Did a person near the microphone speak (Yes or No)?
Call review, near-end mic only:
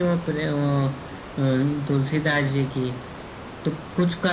No